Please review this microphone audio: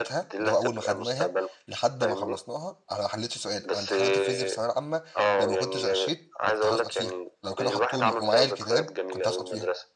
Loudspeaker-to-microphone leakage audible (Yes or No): Yes